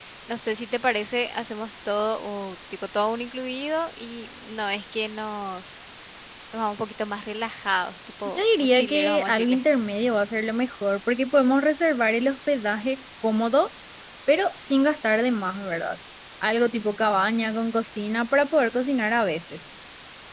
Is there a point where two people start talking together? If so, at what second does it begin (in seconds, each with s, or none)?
8.2 s